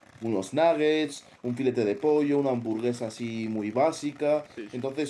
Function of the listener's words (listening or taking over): listening